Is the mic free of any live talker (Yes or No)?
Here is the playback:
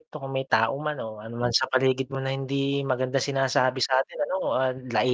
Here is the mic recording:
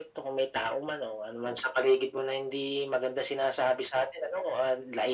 Yes